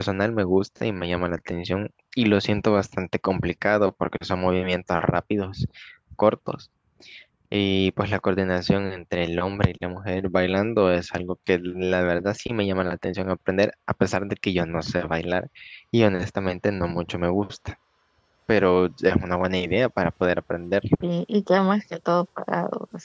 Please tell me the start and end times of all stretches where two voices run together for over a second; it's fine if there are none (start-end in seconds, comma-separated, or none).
none